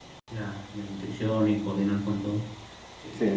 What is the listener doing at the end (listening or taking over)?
taking over